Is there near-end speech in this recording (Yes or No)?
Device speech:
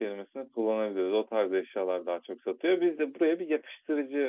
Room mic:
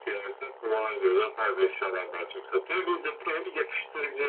No